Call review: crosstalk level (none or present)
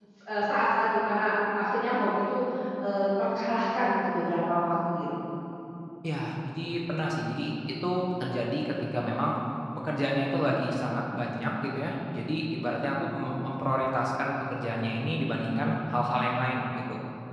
none